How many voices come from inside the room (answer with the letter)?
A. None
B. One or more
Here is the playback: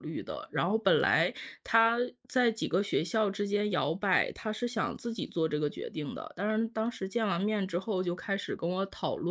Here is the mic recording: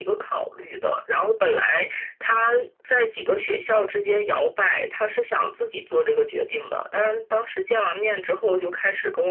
A